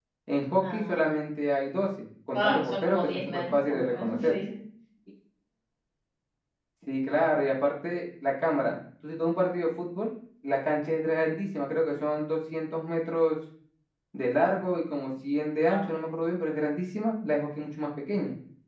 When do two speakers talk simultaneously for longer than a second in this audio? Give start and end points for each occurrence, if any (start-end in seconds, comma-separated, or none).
2.3-4.4